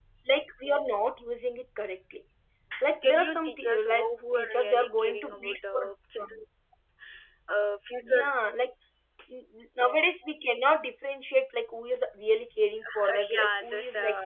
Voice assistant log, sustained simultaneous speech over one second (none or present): present